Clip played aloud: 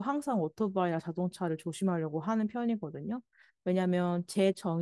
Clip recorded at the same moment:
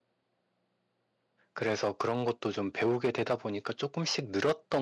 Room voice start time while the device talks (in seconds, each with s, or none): 1.5 s